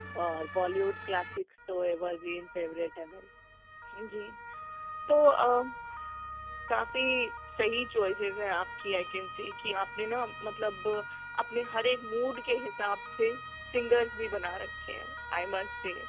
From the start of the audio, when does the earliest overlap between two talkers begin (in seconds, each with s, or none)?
none